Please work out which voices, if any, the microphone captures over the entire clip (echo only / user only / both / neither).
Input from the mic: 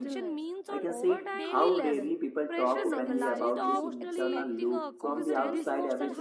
both